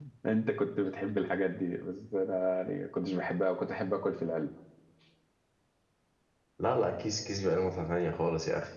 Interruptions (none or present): none